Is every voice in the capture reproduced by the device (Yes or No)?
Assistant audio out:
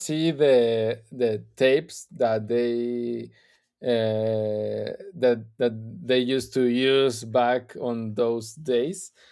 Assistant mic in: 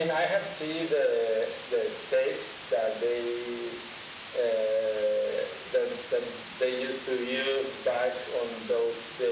Yes